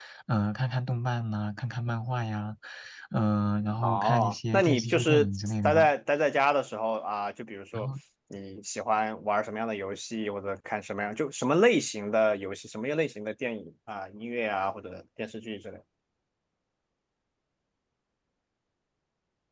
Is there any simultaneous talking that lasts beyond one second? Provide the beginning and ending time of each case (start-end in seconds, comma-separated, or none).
3.8-5.3